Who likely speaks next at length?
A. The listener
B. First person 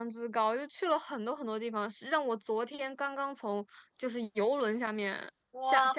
A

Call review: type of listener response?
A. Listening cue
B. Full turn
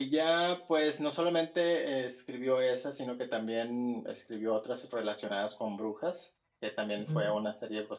A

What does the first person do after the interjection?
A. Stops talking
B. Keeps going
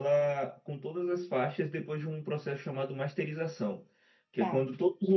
B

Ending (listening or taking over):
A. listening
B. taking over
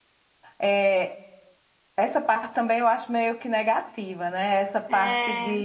A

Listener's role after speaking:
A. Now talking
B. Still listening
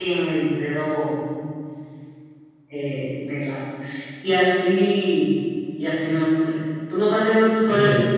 B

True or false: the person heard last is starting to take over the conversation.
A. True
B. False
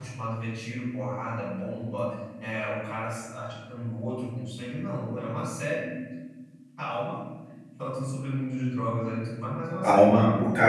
A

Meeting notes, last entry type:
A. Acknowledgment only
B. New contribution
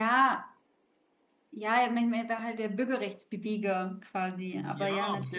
B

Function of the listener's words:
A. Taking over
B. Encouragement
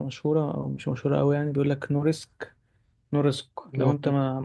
B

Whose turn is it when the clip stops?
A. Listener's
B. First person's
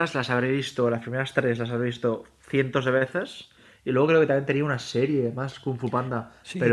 A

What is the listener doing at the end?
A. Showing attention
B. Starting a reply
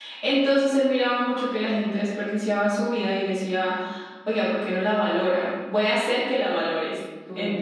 B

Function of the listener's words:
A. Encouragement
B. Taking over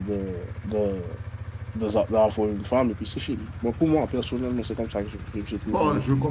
B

